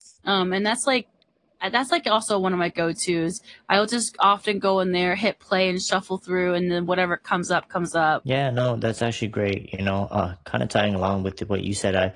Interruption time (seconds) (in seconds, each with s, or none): none